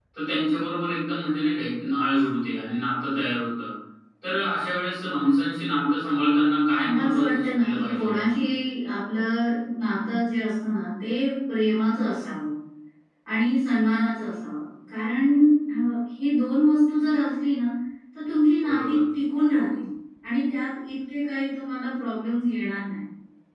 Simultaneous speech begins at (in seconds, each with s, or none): 6.8 s